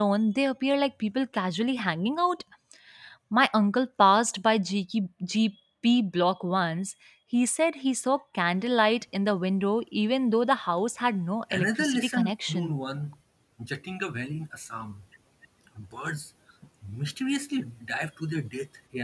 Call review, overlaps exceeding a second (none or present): present